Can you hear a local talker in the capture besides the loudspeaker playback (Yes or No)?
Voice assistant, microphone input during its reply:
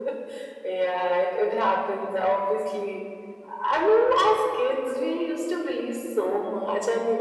No